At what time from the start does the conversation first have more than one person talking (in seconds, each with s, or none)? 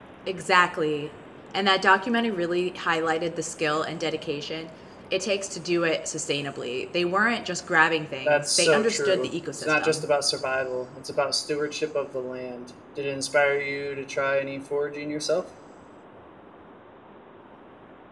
8.2 s